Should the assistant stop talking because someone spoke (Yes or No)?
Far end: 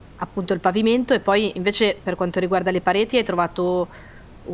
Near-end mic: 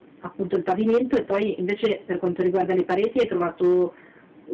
No